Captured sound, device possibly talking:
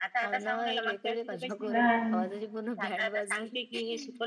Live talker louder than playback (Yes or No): Yes